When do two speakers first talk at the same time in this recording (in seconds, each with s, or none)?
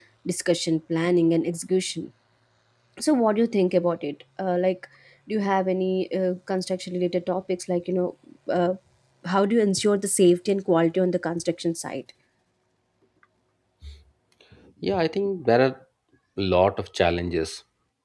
none